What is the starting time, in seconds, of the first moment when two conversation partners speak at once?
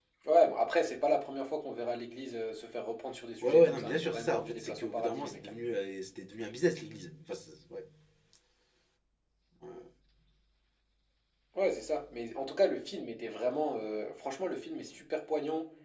3.4 s

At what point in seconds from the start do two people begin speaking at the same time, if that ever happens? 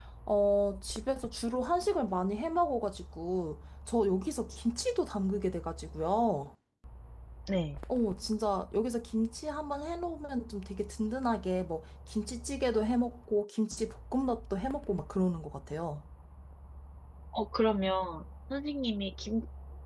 none

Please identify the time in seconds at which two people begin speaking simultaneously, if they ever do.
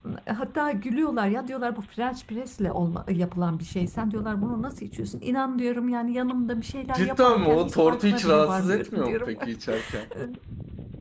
6.9 s

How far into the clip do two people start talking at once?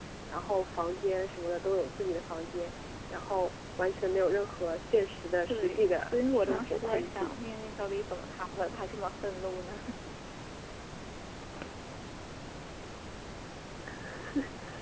5.5 s

